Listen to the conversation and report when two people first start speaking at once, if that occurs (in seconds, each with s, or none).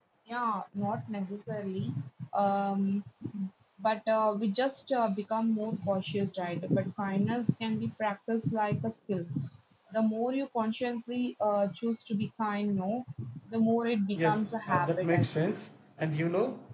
14.2 s